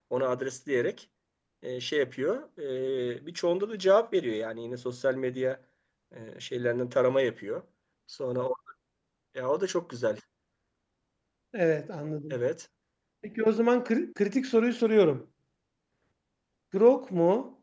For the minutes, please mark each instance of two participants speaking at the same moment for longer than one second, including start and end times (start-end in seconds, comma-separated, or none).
none